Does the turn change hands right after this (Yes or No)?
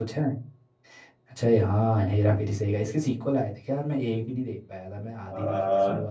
Yes